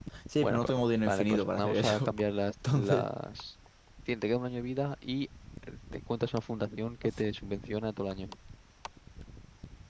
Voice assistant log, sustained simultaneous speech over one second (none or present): present